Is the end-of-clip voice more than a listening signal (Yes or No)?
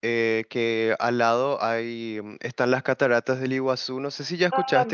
Yes